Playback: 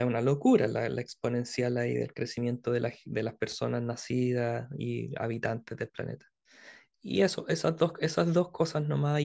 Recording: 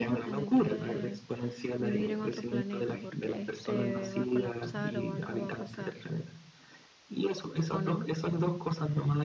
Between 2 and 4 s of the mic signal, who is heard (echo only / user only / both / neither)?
both